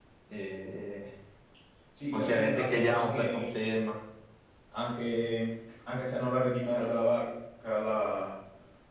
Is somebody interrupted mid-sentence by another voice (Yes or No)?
Yes